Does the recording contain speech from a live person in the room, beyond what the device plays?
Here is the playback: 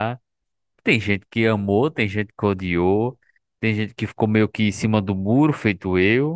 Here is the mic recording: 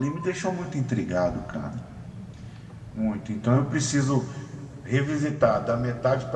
Yes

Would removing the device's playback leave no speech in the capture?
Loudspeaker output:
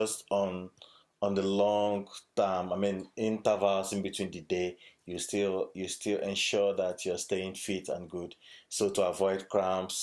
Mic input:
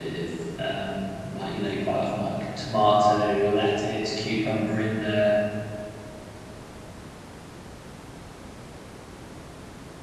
No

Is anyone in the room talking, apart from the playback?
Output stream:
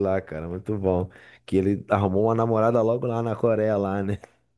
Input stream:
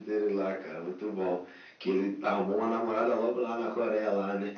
No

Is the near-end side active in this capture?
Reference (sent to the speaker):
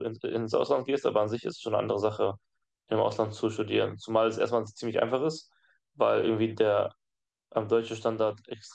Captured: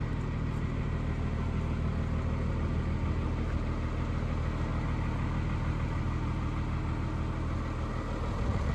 No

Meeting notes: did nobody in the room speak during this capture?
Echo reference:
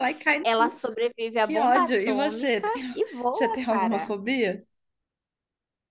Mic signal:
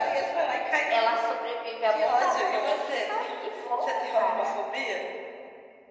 Yes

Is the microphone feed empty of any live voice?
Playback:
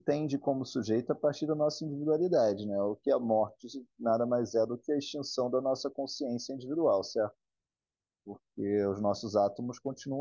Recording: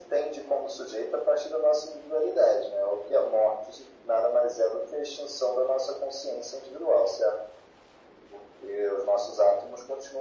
Yes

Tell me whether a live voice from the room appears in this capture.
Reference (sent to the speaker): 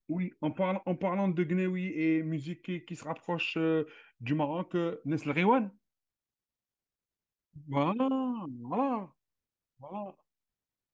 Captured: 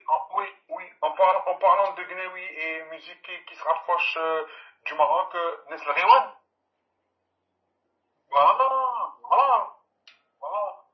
No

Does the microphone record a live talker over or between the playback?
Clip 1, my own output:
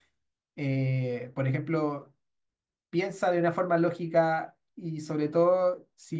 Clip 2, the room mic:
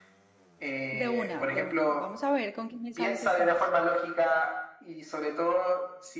Yes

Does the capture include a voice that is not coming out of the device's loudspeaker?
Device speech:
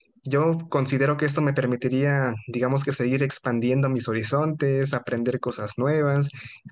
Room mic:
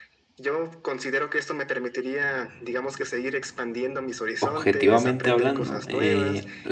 Yes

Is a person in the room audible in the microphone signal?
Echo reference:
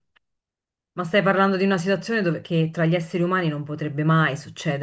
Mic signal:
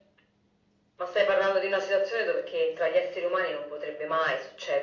No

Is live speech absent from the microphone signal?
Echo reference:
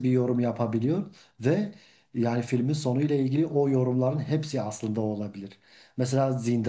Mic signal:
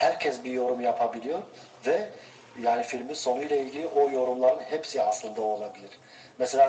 Yes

